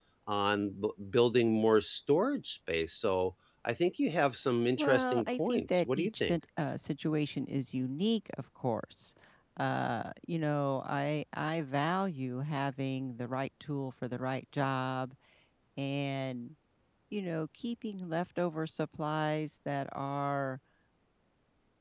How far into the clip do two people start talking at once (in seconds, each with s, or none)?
4.8 s